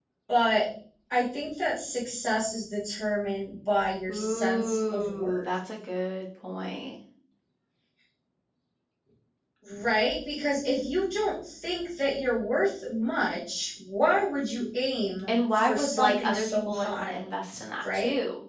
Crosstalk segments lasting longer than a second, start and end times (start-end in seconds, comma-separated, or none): 4.1-5.5, 15.3-17.2